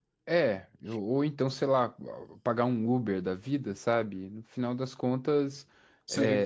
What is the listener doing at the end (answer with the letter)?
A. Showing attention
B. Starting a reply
A